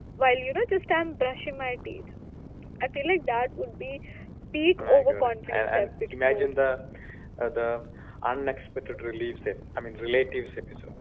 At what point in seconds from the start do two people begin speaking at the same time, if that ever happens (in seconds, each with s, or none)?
4.8 s